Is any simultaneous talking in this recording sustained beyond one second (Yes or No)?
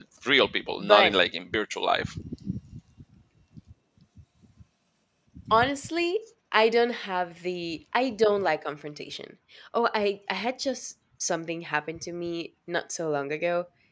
No